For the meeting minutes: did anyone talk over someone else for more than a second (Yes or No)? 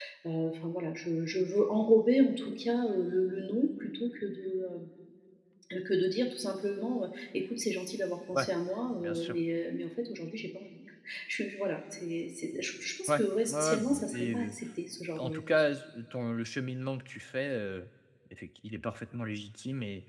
Yes